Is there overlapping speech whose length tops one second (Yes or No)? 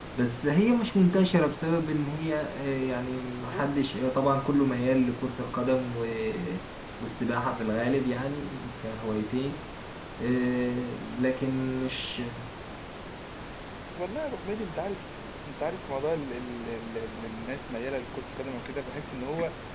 No